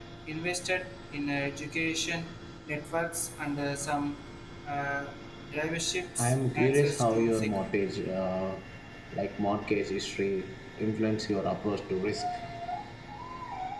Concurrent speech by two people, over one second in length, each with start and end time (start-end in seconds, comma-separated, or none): 6.2-7.6